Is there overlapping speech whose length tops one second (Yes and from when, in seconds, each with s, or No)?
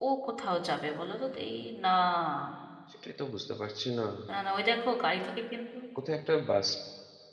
No